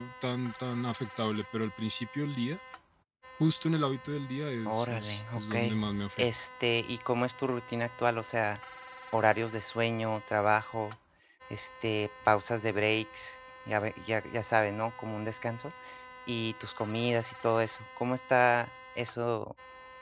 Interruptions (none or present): present